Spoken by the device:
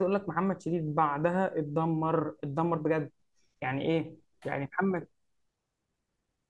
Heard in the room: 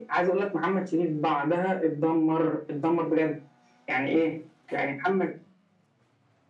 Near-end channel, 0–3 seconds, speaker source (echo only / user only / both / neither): echo only